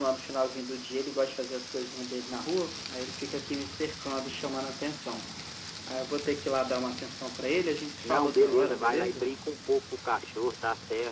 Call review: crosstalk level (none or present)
present